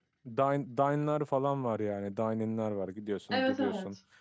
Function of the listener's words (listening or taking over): listening